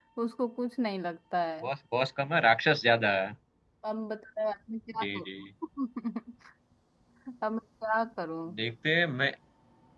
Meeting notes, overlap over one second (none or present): none